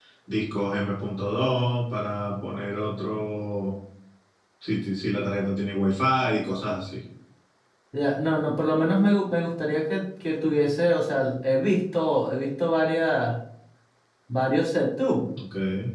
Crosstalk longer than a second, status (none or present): none